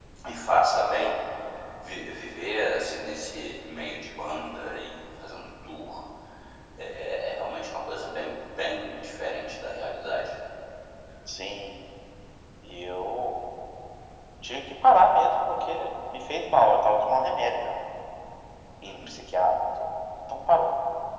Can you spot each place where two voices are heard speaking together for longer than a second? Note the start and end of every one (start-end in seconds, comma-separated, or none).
none